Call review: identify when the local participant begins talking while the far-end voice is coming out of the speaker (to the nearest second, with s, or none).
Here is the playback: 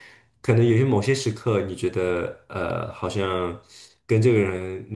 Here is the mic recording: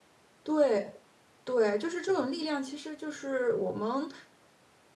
0 s